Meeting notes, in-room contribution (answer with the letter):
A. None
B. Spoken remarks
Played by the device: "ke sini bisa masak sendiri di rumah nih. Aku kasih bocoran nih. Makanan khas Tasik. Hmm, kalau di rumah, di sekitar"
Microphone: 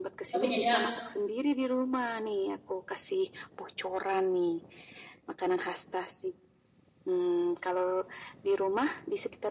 B